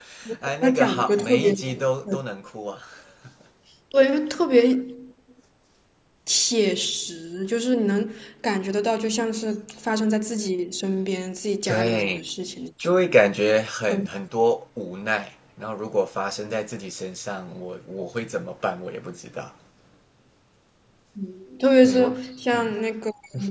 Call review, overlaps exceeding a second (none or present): present